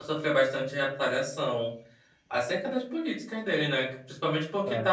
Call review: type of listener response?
listening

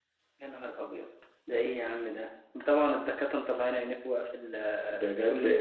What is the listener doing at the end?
taking over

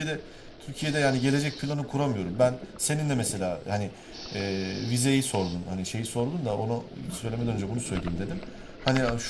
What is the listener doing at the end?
listening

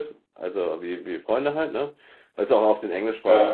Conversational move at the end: listening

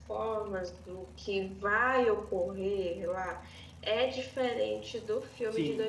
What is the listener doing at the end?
taking over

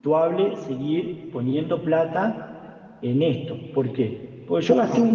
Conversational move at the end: listening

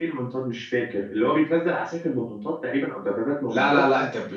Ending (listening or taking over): taking over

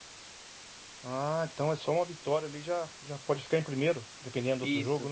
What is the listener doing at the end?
taking over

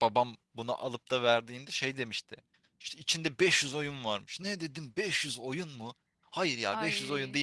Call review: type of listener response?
listening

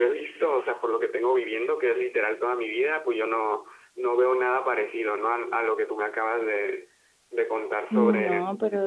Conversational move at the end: taking over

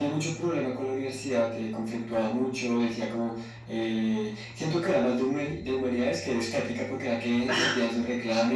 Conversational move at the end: listening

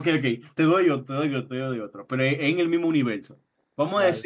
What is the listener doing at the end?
listening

